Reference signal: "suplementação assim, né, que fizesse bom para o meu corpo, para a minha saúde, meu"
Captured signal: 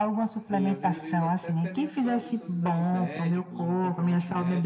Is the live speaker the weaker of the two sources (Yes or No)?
Yes